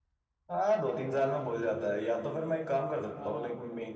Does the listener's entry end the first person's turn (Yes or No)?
No